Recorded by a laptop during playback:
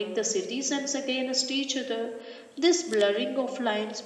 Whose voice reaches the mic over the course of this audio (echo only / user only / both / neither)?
echo only